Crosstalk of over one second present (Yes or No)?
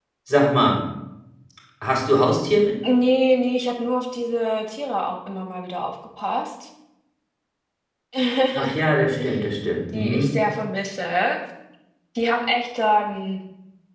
No